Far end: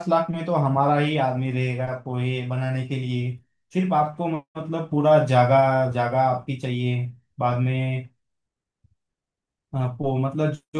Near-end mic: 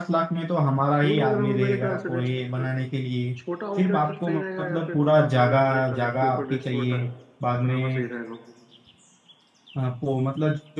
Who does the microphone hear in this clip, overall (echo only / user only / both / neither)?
both